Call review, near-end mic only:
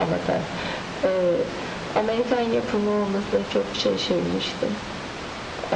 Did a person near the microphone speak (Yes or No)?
No